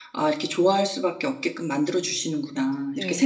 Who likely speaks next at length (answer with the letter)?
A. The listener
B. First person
A